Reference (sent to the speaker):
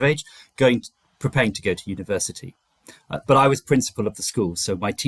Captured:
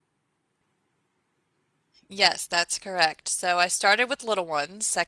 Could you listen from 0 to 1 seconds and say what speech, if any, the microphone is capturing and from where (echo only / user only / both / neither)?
neither